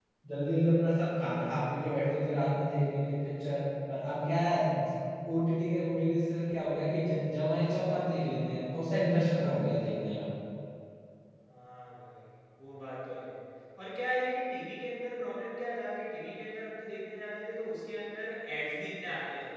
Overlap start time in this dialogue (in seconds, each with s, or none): none